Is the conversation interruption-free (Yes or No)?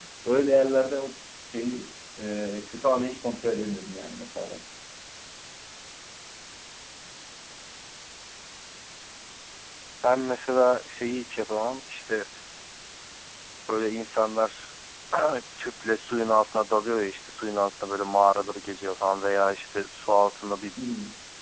Yes